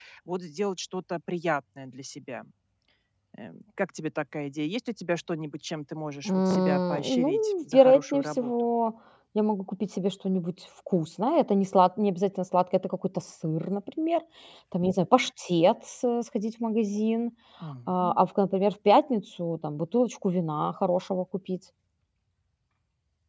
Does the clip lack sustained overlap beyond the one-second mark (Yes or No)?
No